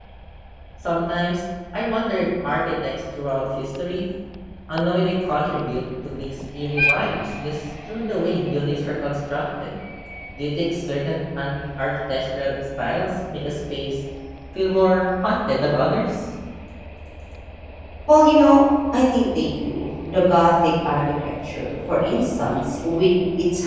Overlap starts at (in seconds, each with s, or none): none